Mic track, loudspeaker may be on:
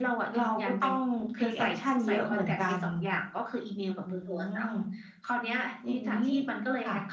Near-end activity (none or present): none